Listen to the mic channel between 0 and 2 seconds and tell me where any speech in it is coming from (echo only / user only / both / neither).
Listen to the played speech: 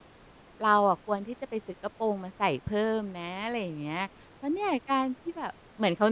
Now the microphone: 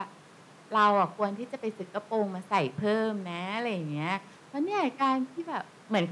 echo only